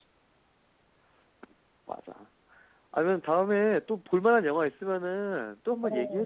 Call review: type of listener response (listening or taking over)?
taking over